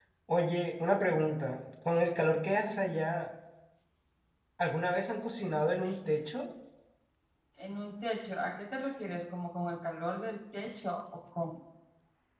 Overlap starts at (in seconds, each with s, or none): none